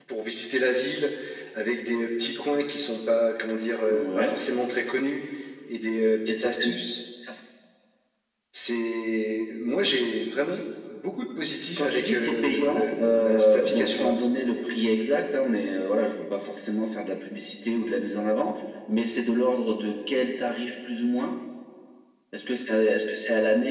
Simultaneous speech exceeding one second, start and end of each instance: 11.8-14.2

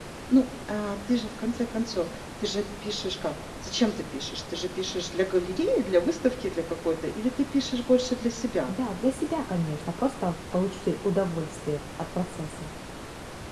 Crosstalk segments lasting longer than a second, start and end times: none

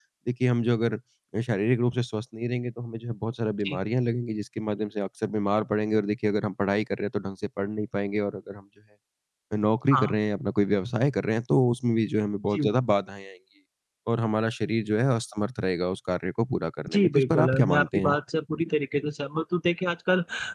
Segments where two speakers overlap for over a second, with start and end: 16.9-18.1

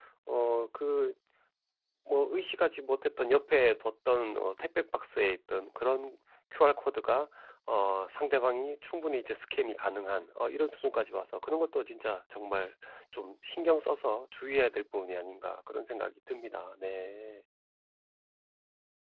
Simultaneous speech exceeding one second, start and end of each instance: none

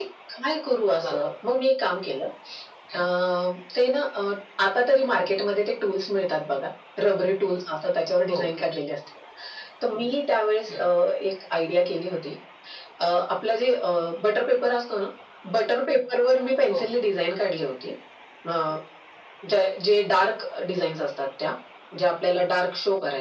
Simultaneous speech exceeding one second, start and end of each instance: none

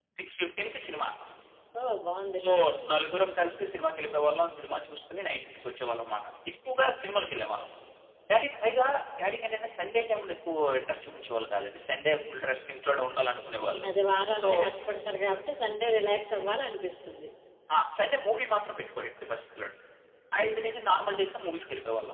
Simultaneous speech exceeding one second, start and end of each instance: none

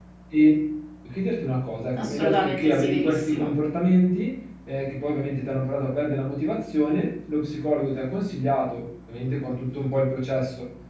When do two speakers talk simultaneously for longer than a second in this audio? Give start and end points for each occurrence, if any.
2.0-3.5

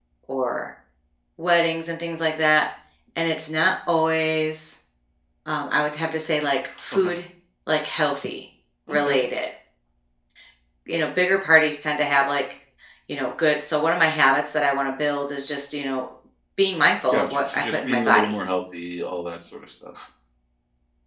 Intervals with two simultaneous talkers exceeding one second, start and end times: 17.1-18.3

